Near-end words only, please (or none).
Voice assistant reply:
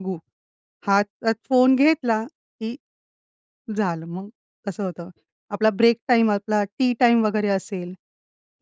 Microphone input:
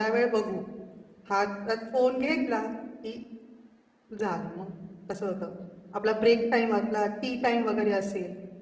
none